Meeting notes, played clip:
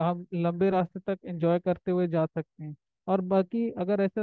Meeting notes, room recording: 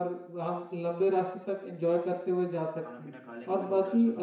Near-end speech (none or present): present